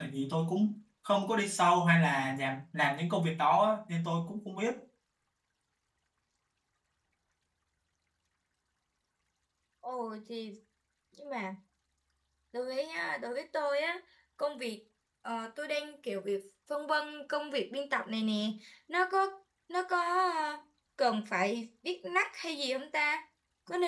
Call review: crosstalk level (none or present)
none